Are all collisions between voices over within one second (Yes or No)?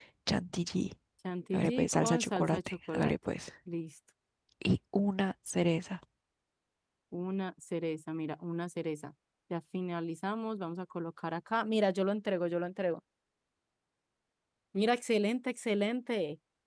No